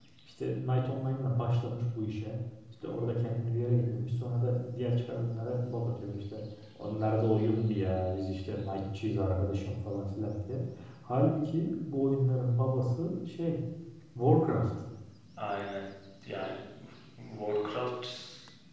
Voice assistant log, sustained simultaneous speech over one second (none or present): none